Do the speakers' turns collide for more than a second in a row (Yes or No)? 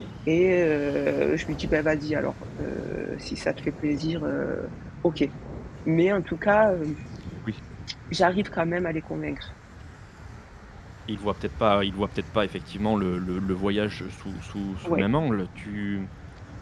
No